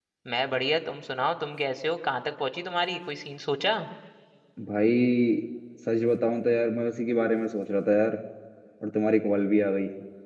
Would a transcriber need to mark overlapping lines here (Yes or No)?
No